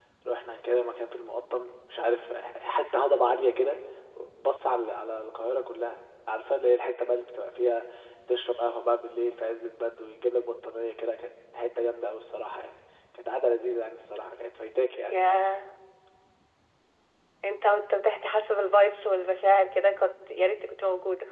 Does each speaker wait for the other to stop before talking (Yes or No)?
Yes